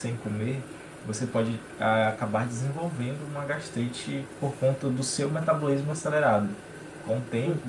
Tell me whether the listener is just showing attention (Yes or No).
Yes